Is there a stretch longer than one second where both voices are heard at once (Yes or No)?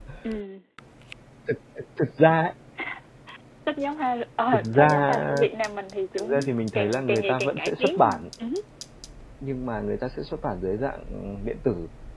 Yes